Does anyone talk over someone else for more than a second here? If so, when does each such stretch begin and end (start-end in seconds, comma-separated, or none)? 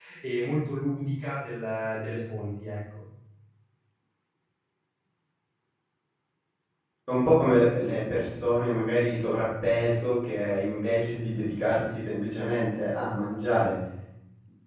none